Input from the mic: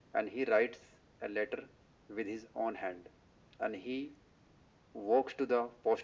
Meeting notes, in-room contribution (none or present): none